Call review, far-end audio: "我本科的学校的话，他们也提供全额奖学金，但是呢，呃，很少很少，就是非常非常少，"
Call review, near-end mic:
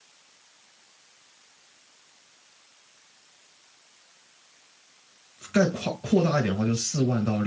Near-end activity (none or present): present